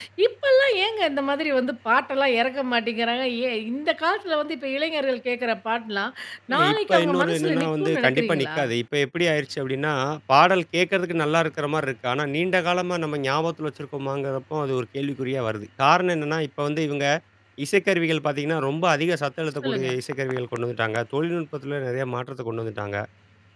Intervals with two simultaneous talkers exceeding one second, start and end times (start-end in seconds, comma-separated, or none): 6.7-8.6